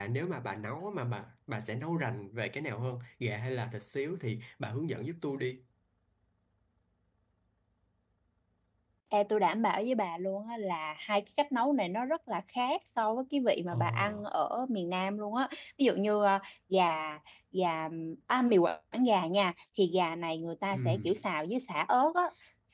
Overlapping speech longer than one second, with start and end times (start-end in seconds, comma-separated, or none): none